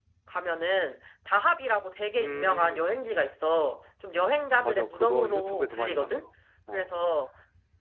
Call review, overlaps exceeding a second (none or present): present